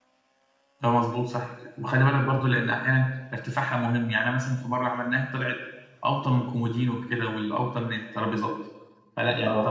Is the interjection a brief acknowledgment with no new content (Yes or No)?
Yes